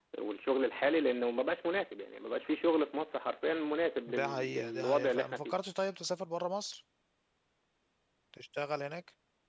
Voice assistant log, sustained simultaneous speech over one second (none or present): present